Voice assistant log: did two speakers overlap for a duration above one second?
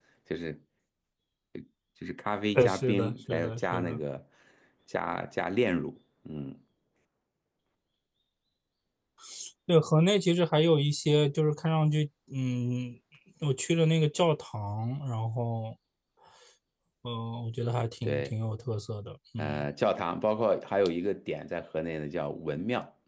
Yes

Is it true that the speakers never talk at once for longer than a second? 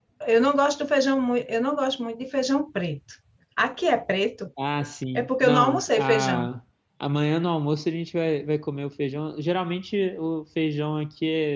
No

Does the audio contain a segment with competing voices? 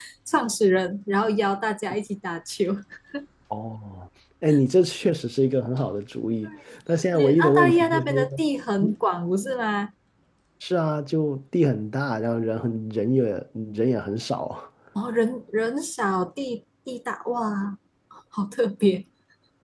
Yes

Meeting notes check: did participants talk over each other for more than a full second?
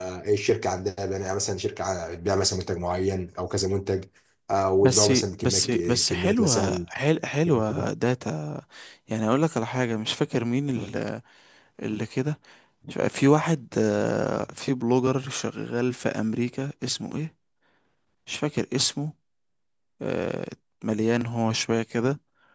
Yes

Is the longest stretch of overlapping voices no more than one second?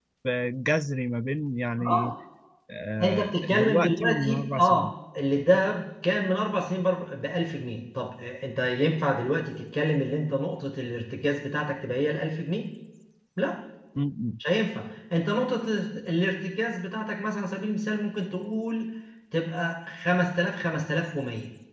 No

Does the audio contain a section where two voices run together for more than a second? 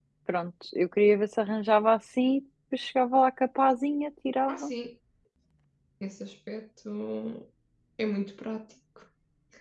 No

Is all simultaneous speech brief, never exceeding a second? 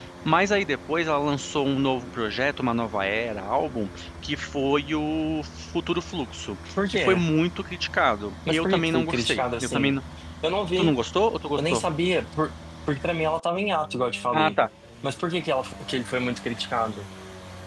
No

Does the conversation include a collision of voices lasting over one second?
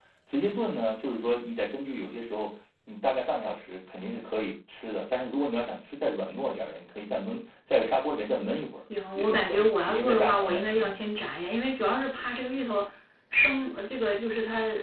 Yes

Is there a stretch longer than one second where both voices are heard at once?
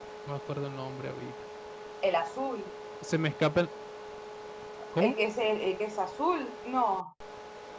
No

